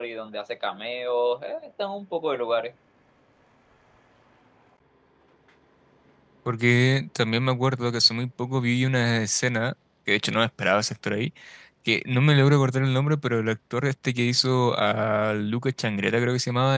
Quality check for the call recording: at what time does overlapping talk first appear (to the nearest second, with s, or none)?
none